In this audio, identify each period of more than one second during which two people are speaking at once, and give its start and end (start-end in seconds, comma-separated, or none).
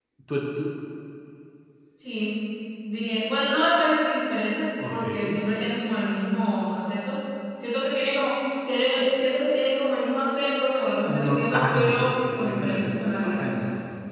11.2-13.6